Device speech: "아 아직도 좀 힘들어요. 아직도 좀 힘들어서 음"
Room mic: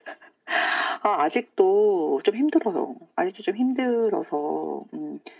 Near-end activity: none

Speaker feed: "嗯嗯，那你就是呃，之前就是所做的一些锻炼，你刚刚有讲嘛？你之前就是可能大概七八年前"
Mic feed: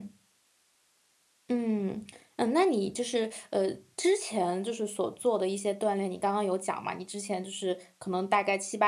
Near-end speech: none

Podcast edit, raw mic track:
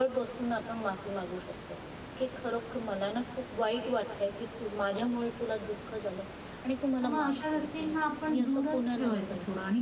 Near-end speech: present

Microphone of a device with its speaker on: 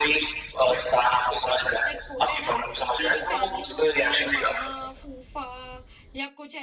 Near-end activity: present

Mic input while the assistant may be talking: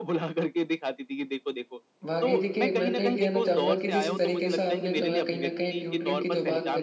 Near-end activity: present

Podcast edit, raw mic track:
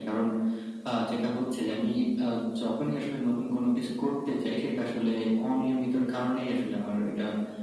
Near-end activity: none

